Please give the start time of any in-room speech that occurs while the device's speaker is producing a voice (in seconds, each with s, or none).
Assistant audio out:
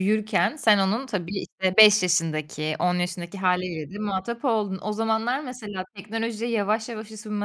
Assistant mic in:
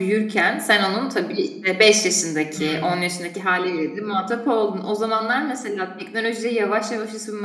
2.5 s